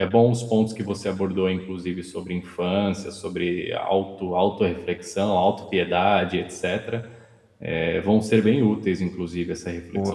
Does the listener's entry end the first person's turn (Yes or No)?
No